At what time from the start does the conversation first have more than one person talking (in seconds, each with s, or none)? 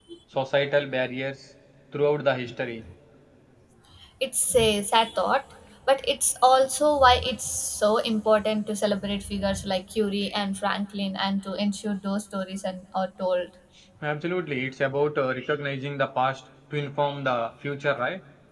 none